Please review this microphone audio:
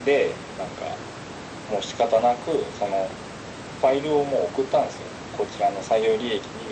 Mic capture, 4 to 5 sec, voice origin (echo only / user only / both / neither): echo only